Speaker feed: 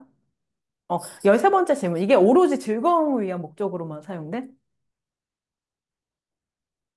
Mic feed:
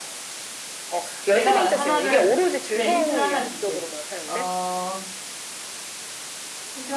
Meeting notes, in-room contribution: present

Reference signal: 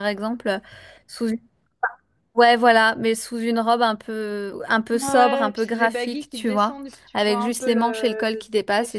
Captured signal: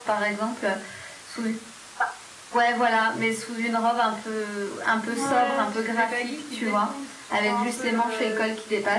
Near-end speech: none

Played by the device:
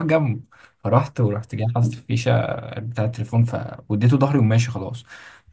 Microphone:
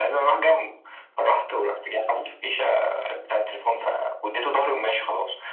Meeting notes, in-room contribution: none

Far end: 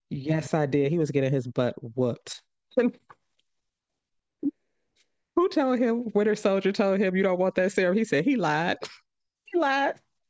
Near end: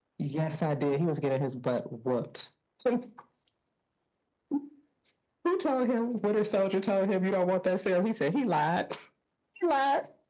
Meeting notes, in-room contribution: none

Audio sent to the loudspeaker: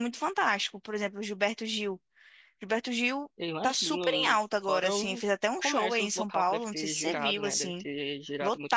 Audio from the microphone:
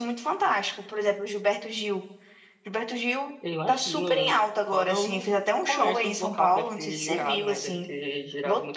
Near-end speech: none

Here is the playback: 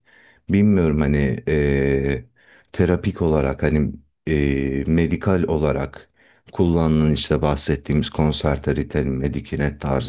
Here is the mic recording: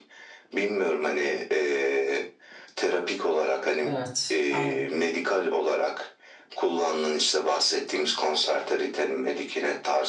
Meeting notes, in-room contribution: present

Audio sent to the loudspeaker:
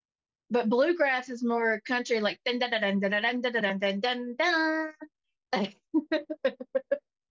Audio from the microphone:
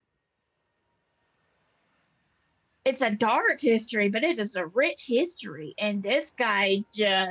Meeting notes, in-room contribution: present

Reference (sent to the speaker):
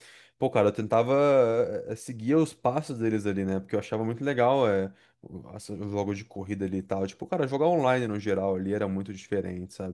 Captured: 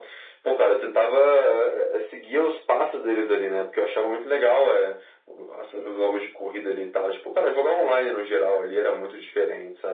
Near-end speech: none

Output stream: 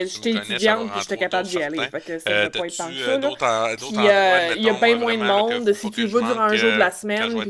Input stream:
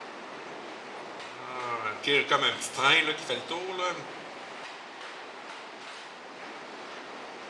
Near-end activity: present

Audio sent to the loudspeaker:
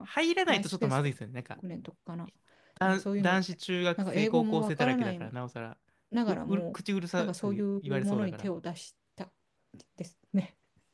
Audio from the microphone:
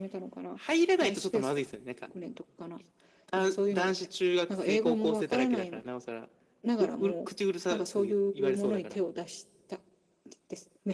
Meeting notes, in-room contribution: none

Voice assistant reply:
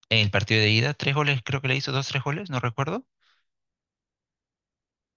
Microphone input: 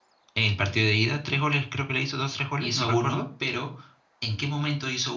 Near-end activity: present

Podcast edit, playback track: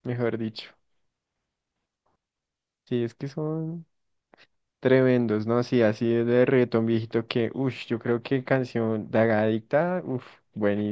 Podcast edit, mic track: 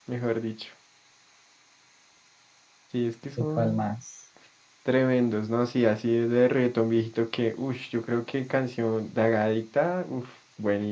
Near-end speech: present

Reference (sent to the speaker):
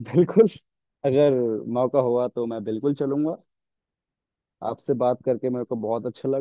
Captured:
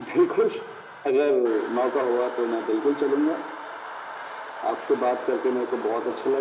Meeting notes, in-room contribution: none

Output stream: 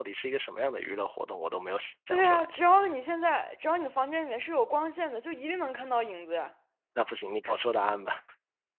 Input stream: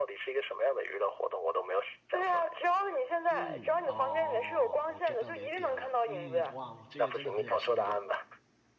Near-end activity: present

